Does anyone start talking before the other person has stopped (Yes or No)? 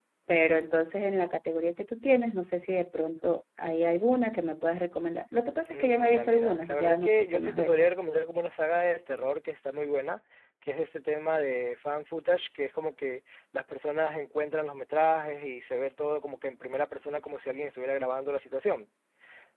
Yes